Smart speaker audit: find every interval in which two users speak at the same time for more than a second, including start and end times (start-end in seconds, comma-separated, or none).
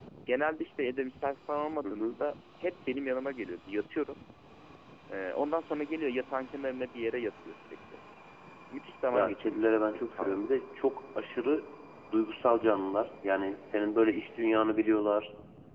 9.1-10.4